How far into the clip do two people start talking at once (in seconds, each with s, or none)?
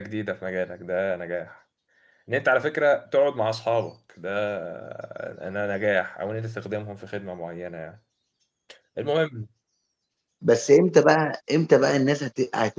none